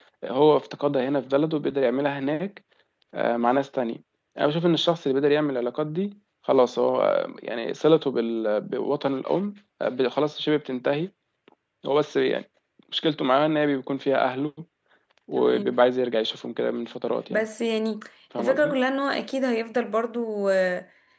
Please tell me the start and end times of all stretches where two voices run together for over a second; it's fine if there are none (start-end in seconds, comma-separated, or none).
none